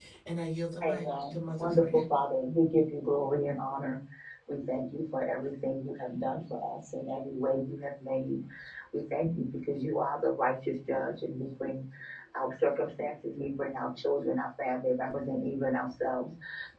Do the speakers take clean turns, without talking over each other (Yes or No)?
No